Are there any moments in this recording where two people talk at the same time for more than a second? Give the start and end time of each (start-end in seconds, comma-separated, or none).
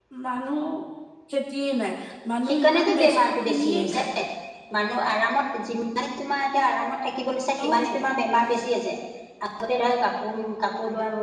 2.5-4.0